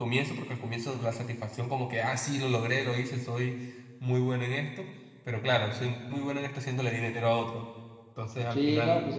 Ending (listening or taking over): taking over